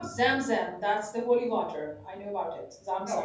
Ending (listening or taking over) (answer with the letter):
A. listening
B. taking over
B